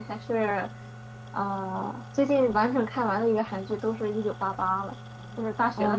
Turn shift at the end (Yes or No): Yes